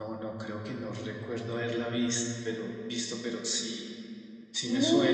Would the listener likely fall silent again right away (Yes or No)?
No